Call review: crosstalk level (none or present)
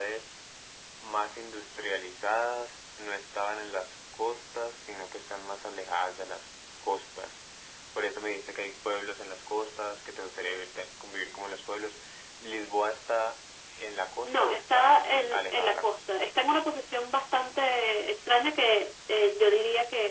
present